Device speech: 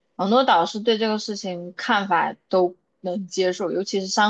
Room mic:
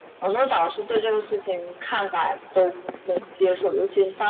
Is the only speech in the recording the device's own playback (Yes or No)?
Yes